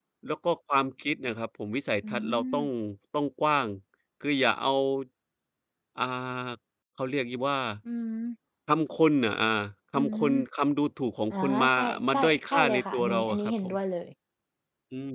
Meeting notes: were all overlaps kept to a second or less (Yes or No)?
No